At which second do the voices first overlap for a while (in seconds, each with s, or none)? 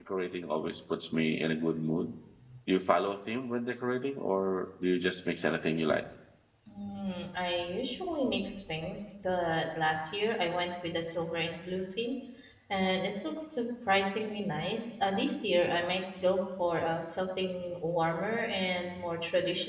none